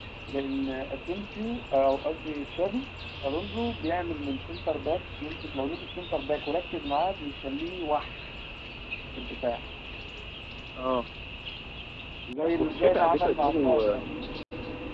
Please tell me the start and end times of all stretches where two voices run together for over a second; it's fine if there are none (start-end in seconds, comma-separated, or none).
12.6-14.0